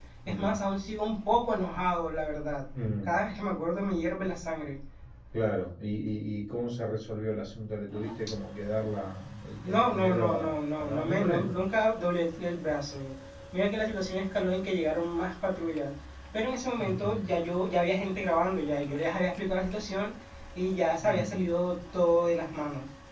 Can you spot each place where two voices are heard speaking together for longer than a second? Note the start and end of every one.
9.6-11.6

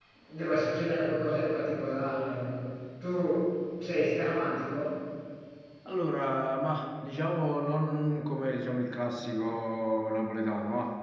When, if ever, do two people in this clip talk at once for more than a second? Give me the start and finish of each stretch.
none

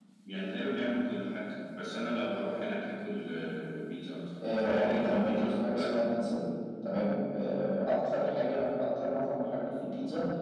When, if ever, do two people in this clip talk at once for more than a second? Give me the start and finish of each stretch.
4.6-5.9

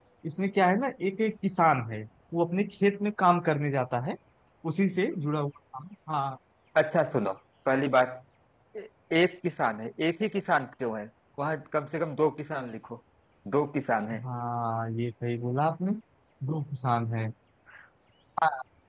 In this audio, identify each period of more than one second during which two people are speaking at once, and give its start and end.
none

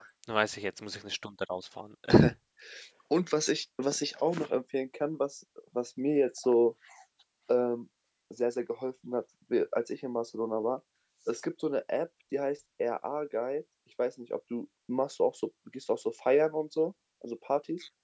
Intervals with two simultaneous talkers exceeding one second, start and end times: none

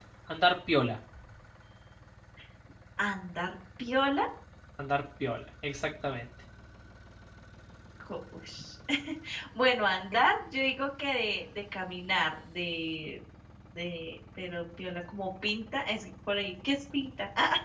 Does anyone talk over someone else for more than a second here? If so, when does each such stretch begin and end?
none

